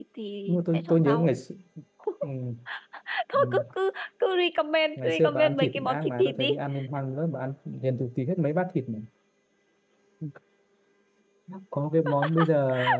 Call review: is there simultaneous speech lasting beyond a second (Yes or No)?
Yes